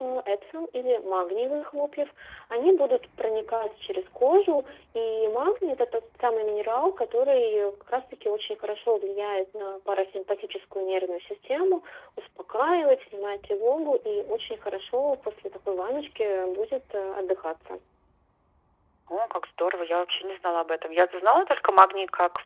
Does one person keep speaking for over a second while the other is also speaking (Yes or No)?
No